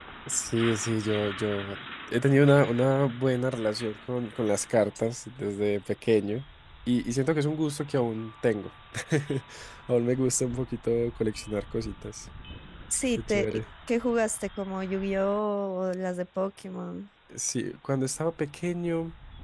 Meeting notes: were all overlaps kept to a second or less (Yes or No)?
Yes